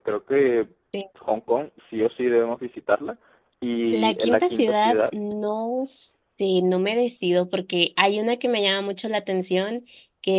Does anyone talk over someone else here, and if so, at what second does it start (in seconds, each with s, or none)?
3.9 s